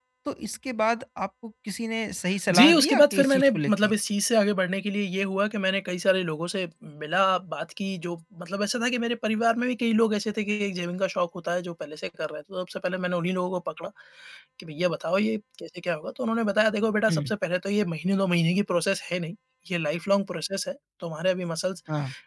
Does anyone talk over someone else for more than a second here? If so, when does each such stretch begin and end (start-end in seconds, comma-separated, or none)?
2.5-3.9